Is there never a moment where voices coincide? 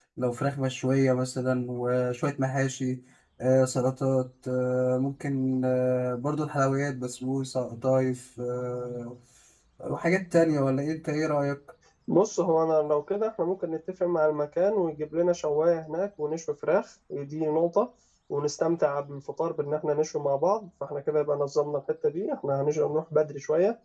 Yes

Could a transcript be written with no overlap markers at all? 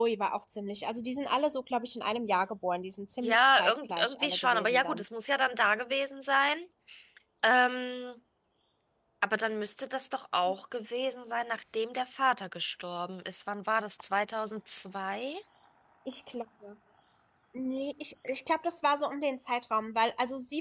No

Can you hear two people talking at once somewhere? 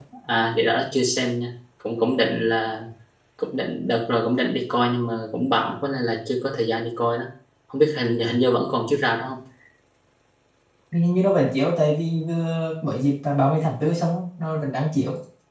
No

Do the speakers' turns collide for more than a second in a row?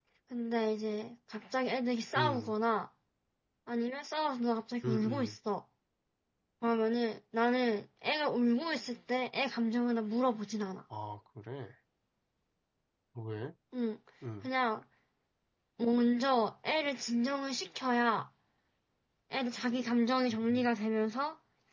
No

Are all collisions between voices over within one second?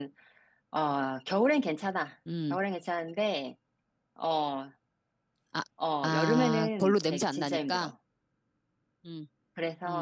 No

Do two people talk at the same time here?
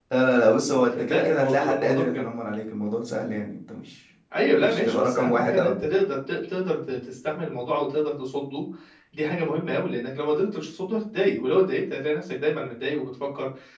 Yes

